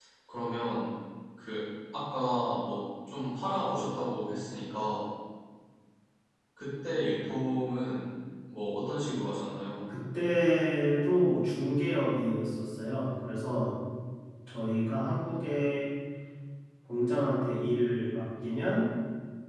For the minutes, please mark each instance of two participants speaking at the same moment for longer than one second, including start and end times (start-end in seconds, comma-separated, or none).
none